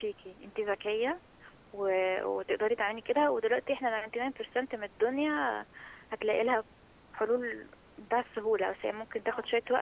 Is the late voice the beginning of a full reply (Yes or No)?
No